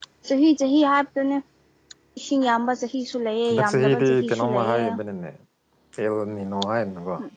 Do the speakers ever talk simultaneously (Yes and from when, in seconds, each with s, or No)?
Yes, from 3.5 s